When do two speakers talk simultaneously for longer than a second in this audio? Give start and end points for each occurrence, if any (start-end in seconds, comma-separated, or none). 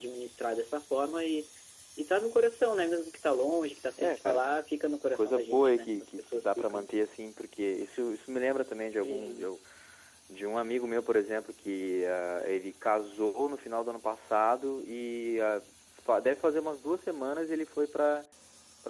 5.2-7.0